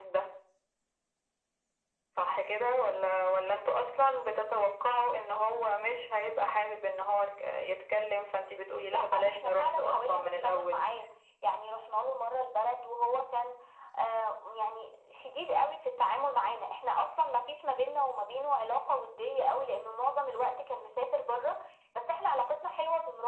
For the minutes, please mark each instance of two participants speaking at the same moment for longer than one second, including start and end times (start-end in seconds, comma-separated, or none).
8.9-10.8